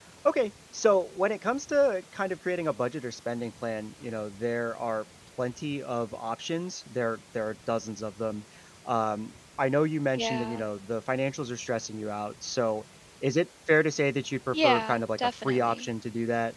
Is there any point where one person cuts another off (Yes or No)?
Yes